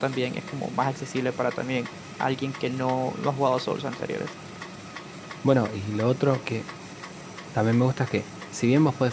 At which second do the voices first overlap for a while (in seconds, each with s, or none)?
none